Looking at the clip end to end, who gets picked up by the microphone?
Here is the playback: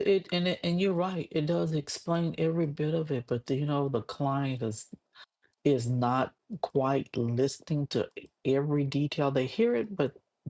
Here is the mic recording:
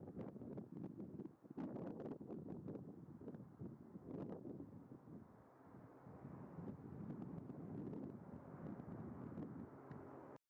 neither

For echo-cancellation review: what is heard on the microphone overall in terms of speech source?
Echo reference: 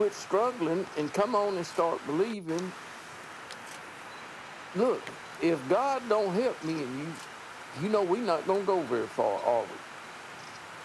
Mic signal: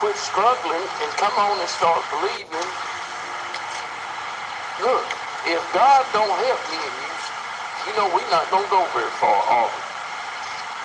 echo only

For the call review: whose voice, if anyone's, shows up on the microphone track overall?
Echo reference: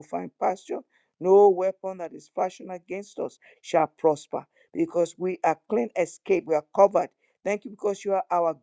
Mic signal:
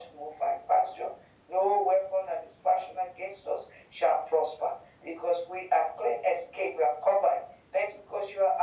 echo only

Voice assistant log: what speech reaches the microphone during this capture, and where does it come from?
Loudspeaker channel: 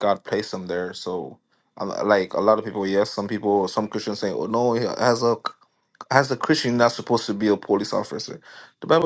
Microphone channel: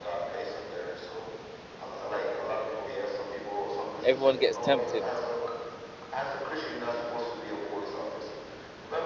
both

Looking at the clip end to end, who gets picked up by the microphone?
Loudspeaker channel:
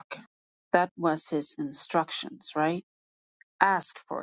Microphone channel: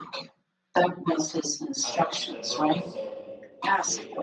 both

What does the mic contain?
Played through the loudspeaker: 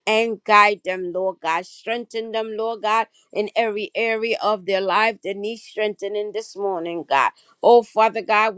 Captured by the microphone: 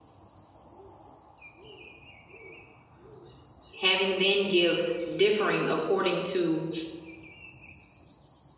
user only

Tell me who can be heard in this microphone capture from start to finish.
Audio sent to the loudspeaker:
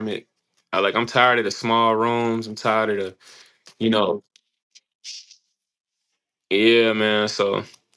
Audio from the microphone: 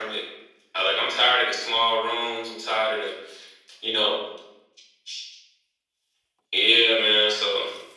echo only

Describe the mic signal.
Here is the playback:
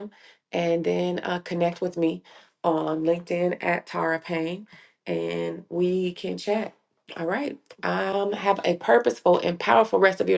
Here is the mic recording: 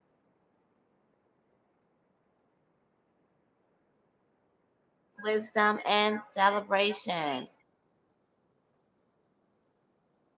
user only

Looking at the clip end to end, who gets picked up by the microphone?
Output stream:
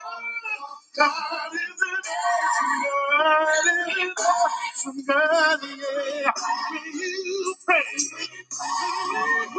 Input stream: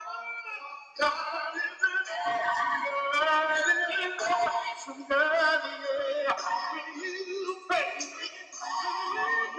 echo only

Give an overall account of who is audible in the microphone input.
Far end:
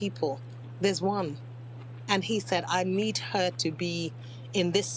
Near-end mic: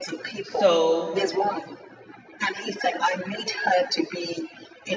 both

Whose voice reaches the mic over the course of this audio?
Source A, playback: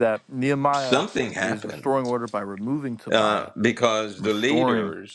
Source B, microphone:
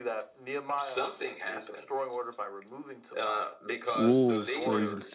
both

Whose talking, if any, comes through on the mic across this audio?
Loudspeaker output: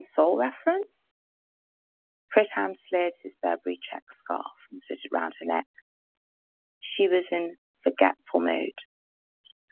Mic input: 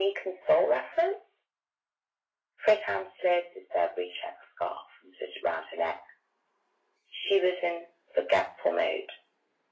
echo only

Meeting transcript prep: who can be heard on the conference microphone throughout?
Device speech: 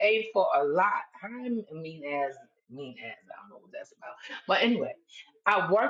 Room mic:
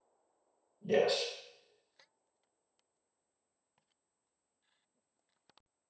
user only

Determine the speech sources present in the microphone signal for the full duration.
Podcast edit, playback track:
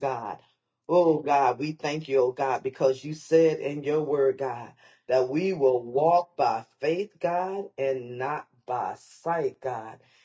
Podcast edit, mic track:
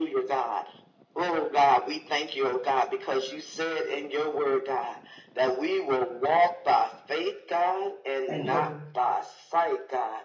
both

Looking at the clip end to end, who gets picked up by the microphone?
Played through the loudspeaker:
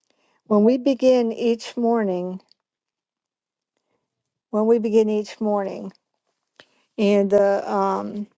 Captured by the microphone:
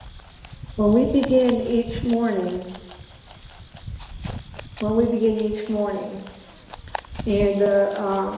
echo only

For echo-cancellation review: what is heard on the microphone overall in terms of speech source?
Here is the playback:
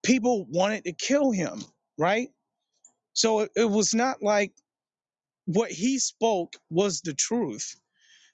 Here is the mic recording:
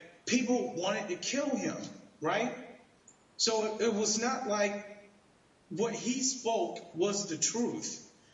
echo only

